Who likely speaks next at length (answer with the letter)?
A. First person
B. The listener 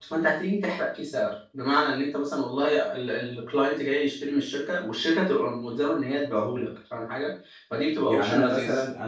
B